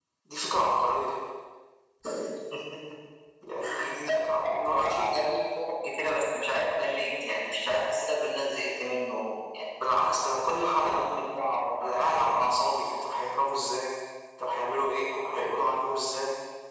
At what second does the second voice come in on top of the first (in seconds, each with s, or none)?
3.9 s